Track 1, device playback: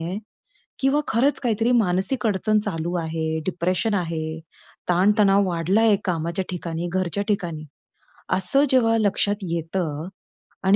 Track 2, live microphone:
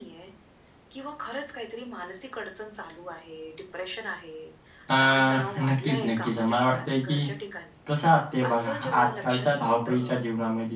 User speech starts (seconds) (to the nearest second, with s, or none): 5 s